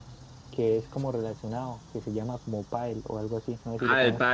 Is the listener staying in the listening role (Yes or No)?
No